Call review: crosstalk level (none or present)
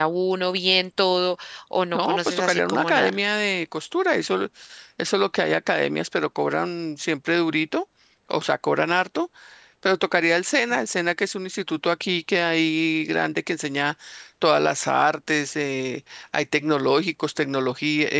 present